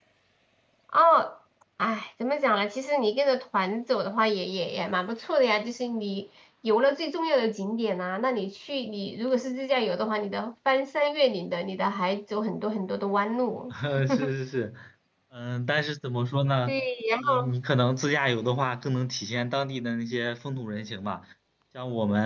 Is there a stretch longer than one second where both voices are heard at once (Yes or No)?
No